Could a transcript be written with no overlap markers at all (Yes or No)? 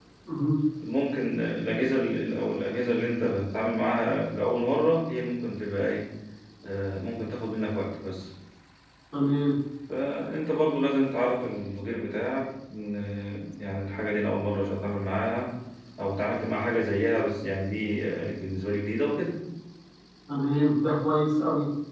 Yes